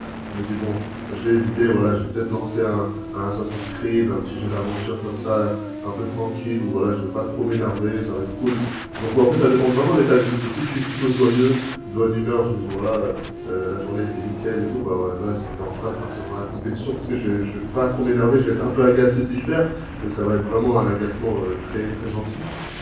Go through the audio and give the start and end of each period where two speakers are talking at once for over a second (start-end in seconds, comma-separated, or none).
none